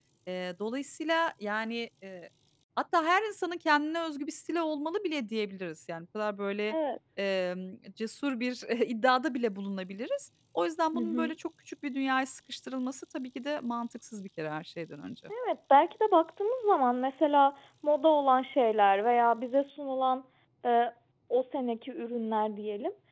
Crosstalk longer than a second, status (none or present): none